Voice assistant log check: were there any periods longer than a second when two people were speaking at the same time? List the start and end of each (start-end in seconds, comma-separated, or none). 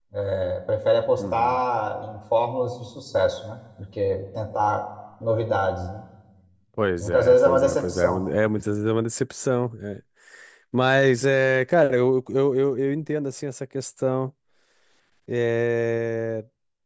7.0-8.2